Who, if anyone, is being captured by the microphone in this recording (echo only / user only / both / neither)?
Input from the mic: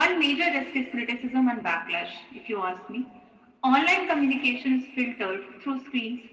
echo only